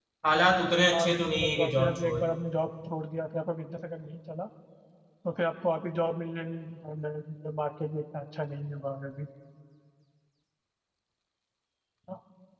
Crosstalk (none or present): present